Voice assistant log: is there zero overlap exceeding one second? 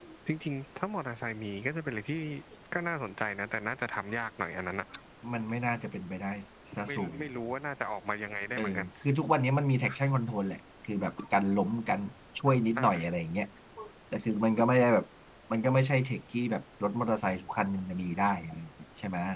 Yes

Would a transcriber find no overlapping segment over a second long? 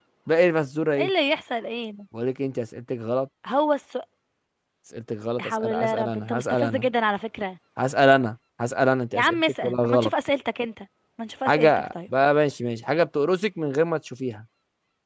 No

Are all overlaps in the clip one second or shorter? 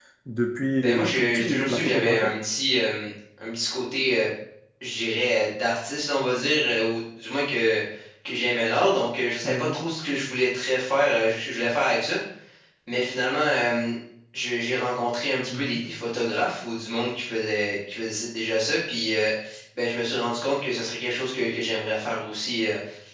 No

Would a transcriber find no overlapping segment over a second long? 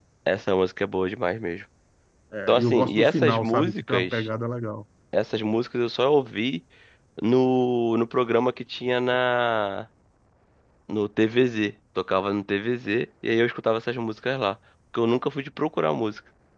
No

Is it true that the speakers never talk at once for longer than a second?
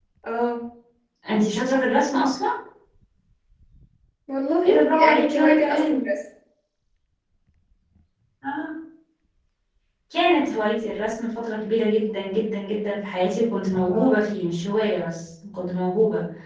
No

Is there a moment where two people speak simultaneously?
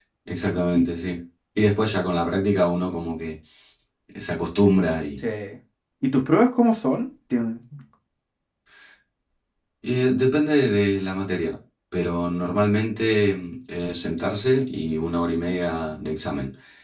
No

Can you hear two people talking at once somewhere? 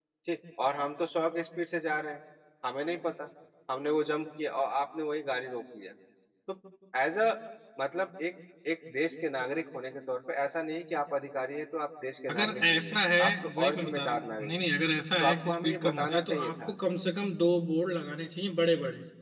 Yes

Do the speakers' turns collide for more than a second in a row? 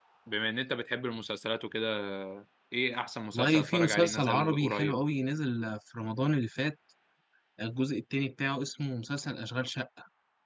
Yes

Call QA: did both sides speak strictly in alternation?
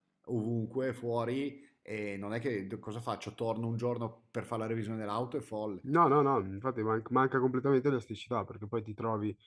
Yes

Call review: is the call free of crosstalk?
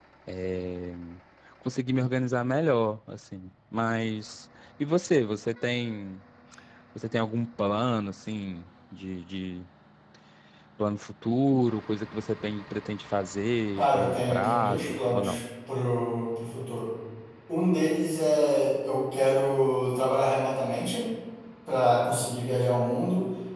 No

